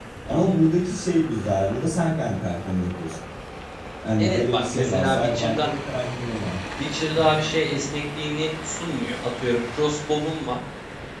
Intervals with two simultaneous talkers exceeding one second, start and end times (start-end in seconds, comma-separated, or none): 4.2-5.7